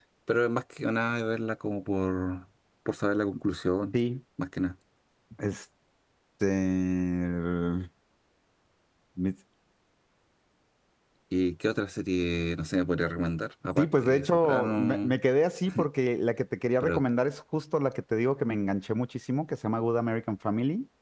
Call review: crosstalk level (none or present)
present